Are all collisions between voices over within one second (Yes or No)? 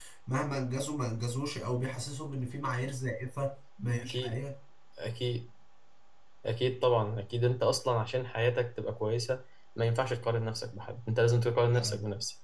Yes